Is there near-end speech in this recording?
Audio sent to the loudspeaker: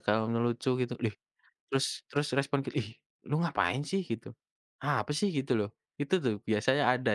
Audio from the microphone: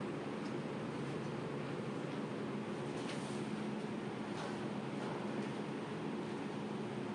No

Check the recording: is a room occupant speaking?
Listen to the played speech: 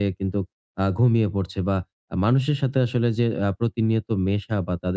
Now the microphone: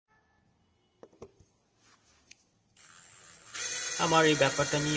Yes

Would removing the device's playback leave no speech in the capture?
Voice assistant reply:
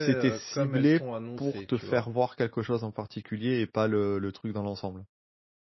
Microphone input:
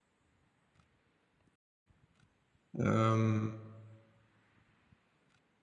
No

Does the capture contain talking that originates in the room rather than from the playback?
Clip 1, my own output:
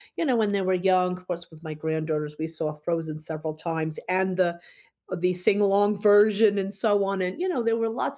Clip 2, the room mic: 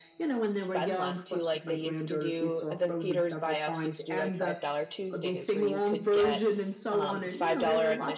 Yes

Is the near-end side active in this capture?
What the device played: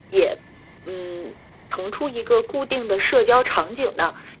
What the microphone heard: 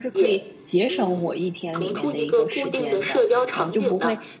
Yes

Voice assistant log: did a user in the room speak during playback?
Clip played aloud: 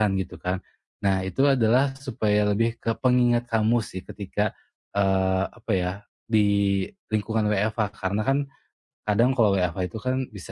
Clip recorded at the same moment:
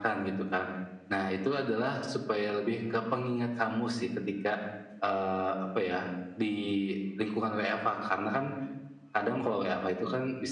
No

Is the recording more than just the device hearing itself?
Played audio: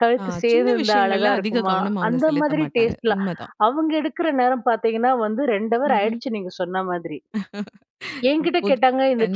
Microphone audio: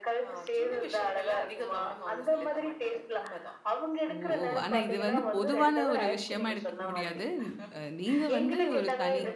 Yes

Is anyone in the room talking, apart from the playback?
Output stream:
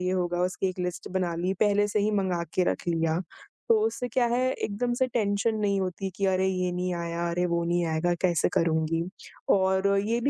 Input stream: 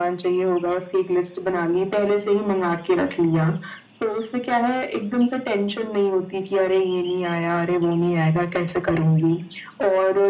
No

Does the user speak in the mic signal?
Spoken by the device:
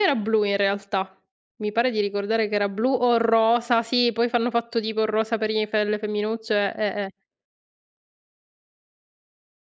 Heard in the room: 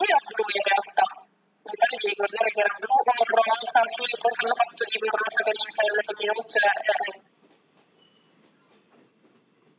No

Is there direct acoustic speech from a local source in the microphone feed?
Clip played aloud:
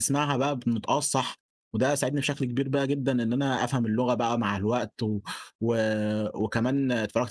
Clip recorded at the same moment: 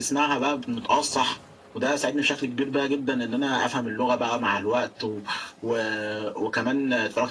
No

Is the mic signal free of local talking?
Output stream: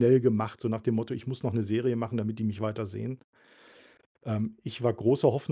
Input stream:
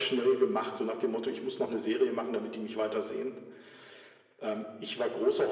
Yes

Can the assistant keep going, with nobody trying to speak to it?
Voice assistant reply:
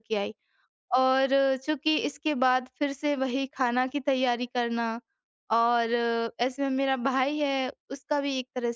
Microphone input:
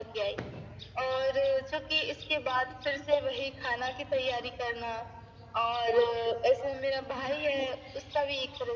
Yes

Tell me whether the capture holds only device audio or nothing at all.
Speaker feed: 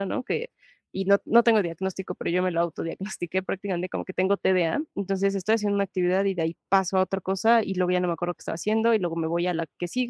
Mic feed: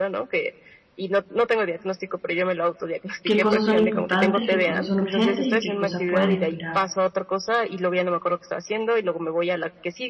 No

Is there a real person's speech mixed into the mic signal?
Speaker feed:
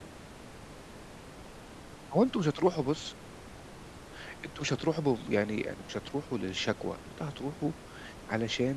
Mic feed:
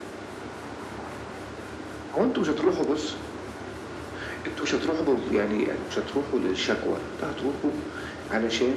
No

